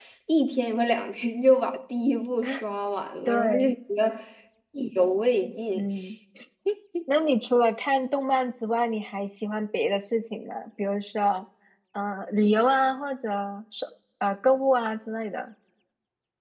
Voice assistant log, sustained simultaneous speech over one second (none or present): none